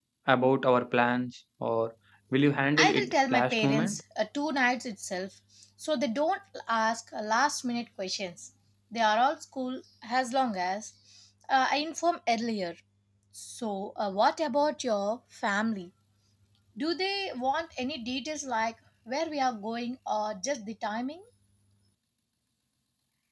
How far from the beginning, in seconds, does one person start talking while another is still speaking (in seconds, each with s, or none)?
2.8 s